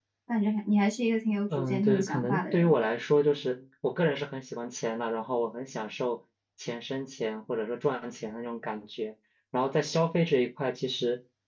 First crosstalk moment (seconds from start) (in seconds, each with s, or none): 1.5 s